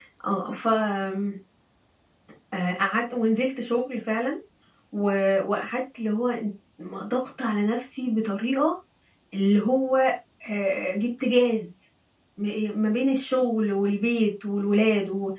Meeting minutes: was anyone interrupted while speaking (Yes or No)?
No